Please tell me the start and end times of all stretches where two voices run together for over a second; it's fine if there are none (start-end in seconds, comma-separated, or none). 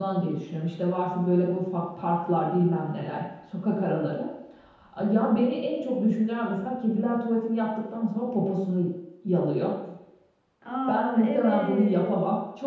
10.9-12.2